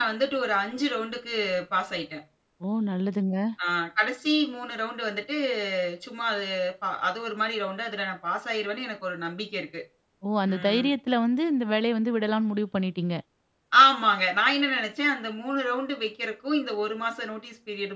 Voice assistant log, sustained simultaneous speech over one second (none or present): none